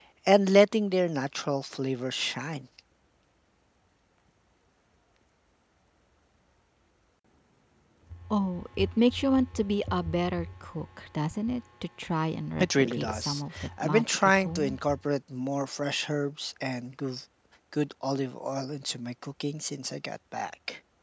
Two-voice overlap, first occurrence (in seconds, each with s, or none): 12.6 s